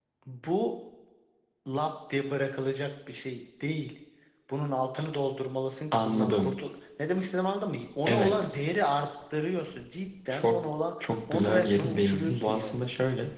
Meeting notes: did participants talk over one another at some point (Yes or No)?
Yes